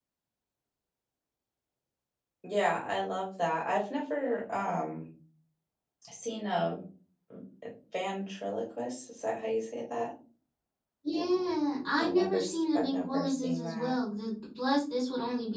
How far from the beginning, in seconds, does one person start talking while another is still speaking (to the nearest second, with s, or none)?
12 s